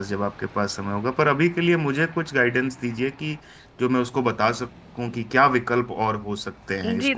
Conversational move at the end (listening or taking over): taking over